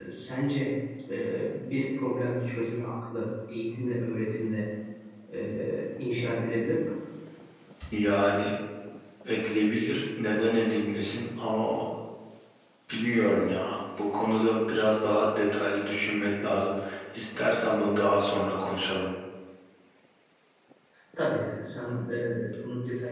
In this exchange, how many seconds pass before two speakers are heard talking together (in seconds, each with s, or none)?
none